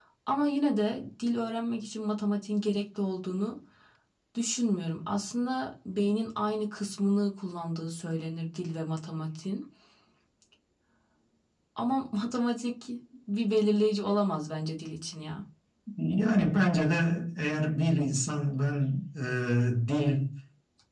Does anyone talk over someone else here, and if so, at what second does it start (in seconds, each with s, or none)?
none